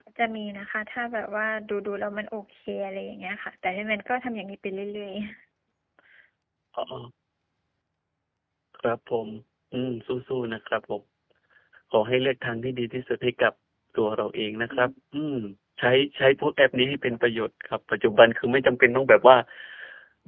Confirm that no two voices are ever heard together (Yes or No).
Yes